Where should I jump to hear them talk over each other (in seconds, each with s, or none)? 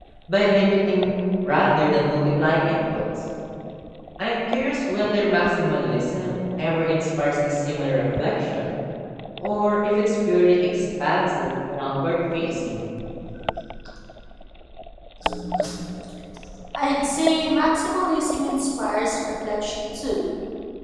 none